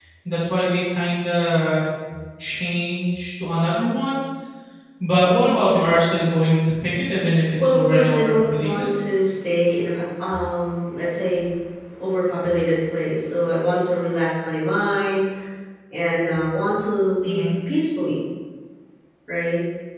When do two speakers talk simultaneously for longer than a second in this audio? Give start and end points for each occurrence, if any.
7.6-8.9

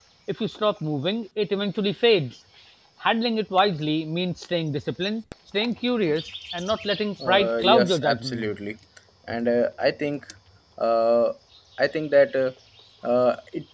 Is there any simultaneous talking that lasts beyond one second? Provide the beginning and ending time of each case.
7.3-8.5

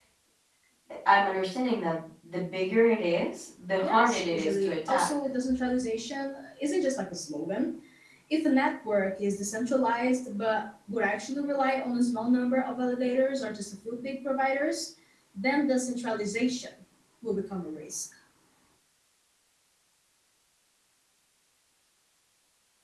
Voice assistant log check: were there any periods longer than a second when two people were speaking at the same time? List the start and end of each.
3.8-5.1

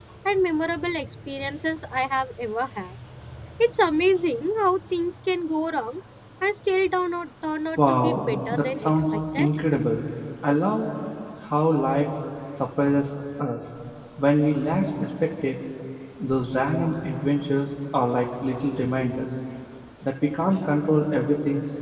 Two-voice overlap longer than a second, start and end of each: 7.8-9.5

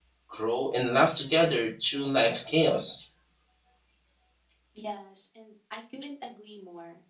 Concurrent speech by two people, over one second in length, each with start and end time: none

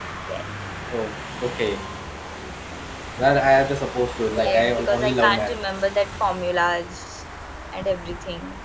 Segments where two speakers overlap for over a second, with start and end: 4.3-5.5

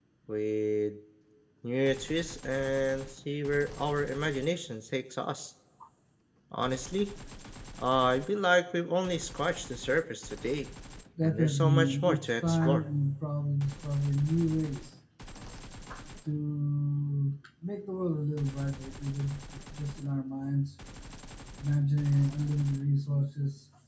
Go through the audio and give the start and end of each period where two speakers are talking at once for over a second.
11.2-12.8

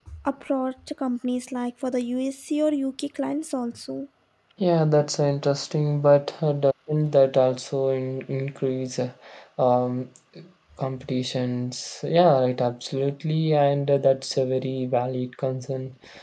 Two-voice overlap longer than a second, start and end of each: none

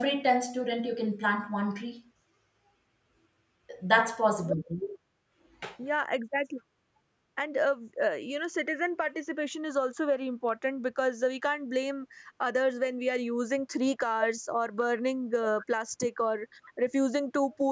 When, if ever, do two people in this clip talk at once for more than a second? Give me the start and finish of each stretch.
none

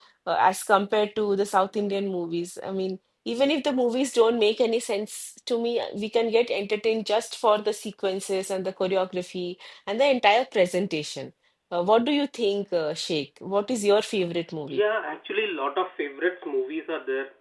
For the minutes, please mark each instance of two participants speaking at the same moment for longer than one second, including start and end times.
none

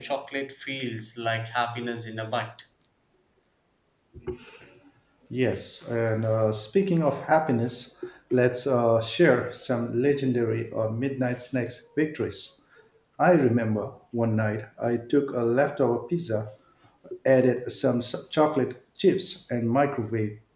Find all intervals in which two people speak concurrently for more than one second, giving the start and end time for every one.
none

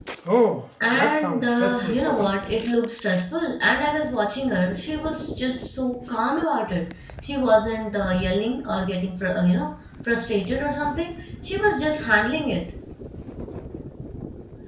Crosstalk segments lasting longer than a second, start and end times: 0.9-2.3

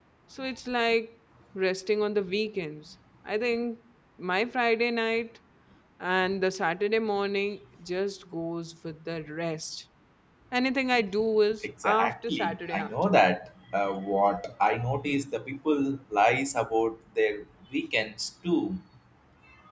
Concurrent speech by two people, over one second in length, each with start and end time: 11.6-13.2

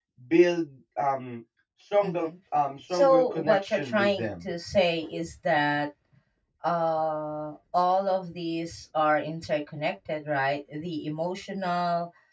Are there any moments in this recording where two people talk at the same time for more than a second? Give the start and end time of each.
2.9-4.3

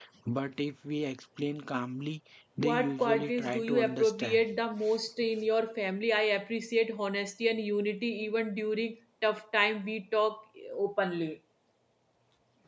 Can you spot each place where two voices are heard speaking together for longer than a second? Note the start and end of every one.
2.6-4.4

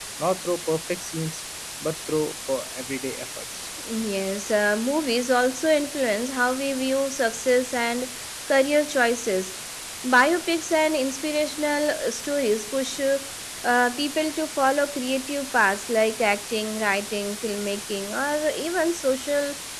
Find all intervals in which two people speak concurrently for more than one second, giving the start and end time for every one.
none

